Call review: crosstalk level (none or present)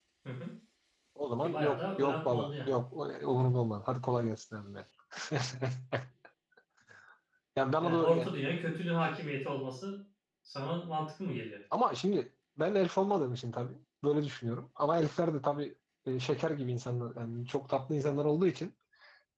present